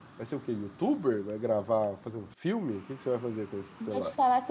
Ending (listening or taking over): taking over